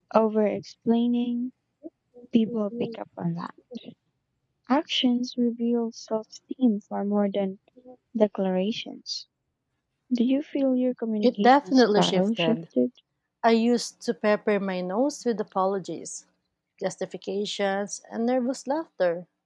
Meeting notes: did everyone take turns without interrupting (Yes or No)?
No